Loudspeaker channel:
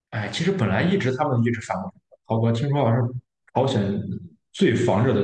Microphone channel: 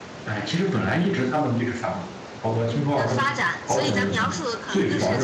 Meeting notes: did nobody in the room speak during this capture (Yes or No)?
No